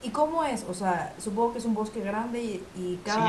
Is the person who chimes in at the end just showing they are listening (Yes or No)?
No